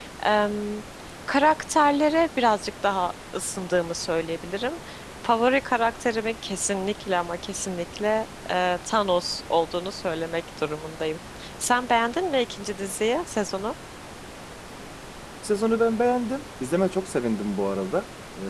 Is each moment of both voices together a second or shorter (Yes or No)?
Yes